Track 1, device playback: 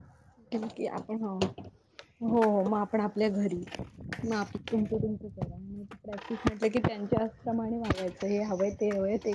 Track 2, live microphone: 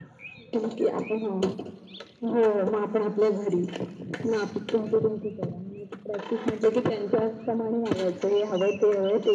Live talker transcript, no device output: none

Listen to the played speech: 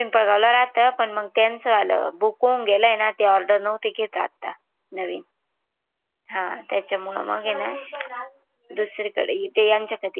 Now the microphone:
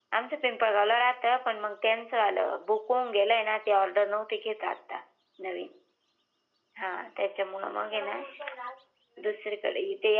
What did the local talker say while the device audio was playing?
none

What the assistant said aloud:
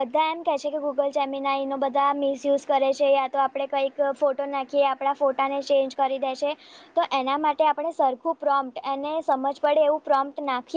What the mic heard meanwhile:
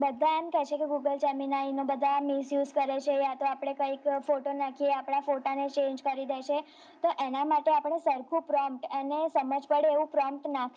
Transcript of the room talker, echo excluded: none

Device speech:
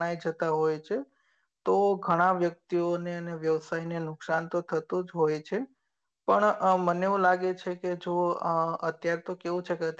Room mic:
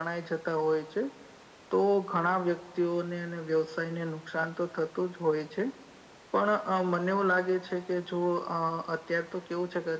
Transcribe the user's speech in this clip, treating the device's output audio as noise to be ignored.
none

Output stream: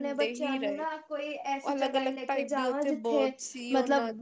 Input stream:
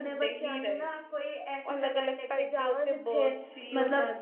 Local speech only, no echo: none

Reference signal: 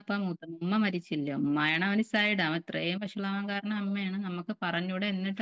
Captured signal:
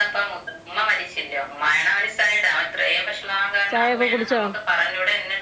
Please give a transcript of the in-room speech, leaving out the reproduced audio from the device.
ചായൊക്കെ കുടിച്ചോ

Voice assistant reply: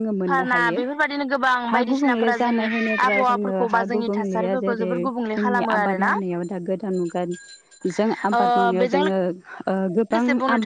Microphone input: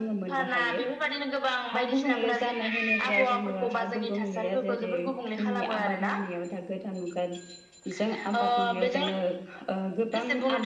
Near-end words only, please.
none

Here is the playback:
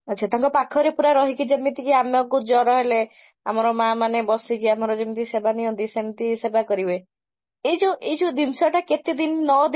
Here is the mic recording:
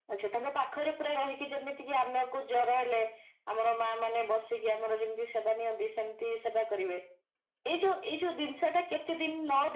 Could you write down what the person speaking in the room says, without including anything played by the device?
none

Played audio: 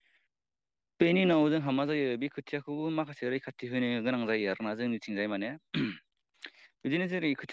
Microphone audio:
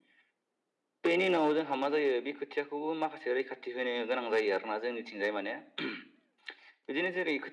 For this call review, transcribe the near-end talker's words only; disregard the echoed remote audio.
none

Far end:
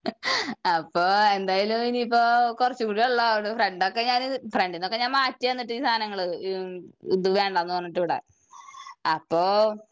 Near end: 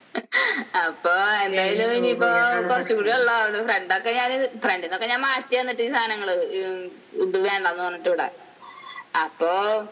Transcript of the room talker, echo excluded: ഏ ഇനി കയറു അതാണ് പ്രശ്നേ

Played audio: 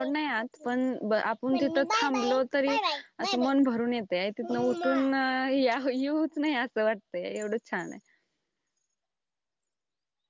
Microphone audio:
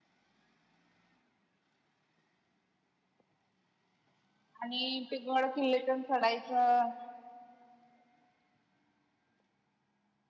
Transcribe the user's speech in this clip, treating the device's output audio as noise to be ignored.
आणि टिकमड किल्लेतण चढायचं

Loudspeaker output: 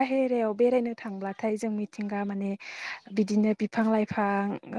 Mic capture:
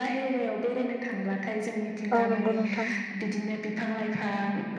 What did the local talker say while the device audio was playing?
औ नंगौ नोंथां

